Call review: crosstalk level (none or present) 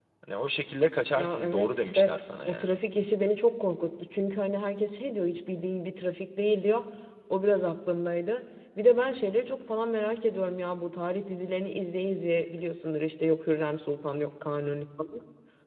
present